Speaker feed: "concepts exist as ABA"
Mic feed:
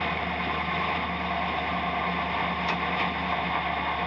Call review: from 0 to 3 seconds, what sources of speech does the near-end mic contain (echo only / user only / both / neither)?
neither